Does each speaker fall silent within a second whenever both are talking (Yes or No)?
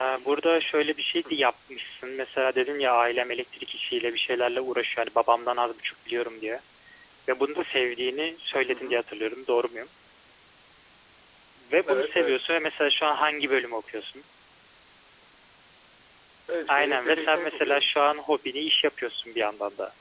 No